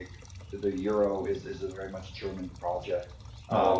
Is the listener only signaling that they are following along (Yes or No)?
Yes